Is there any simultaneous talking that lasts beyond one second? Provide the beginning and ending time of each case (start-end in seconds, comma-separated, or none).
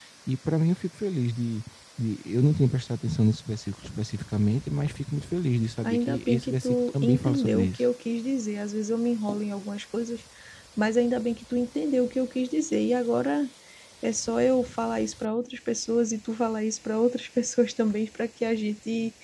5.8-7.8